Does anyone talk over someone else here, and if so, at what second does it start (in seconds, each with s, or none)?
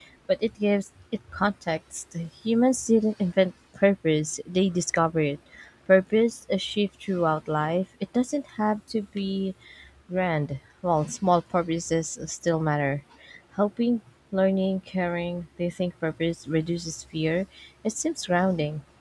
none